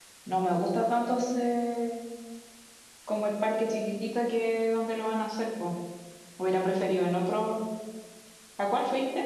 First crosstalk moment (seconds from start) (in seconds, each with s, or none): none